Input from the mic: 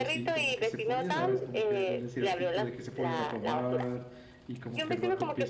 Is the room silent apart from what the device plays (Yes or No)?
No